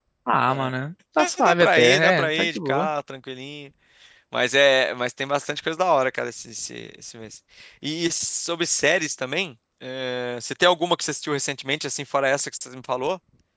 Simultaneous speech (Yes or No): Yes